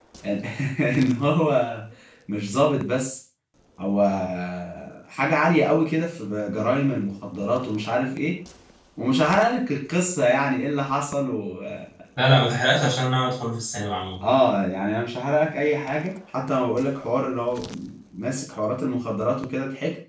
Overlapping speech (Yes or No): No